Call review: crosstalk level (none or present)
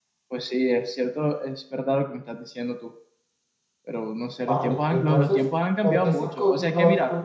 present